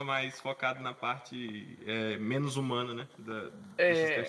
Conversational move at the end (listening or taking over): taking over